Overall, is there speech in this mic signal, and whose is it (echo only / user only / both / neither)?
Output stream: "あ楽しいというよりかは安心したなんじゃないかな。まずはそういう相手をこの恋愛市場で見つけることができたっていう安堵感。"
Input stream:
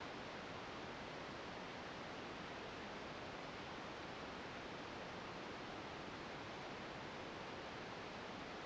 neither